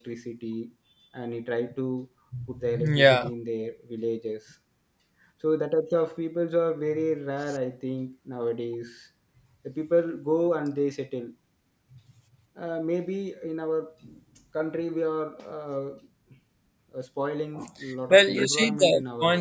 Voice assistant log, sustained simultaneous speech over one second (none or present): present